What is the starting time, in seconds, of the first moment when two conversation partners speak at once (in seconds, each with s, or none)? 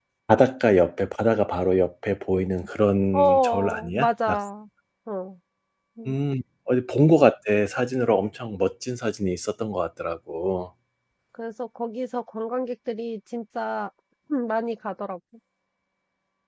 3.1 s